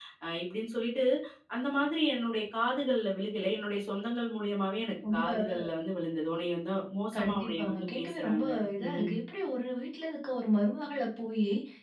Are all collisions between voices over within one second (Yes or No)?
No